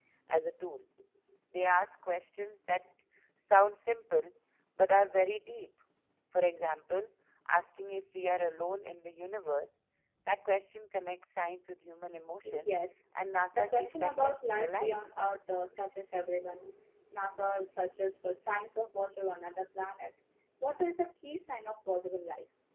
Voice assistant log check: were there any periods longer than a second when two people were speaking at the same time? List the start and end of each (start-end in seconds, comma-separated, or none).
13.5-15.0